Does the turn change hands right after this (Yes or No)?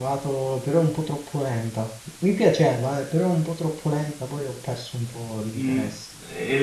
Yes